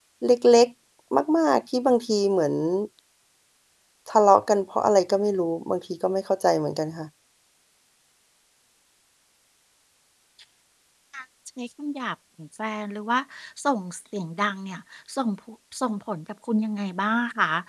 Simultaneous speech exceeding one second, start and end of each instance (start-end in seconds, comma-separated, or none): none